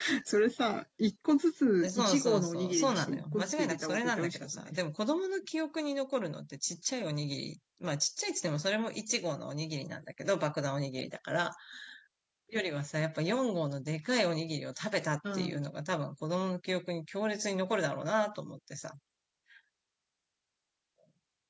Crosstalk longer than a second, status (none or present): present